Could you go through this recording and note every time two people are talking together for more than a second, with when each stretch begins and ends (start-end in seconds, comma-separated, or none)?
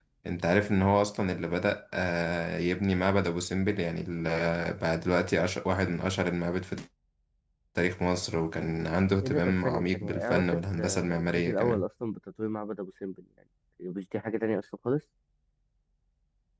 9.2-11.8